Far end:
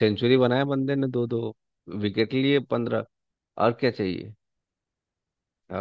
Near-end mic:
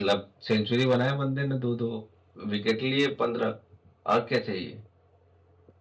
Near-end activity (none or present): none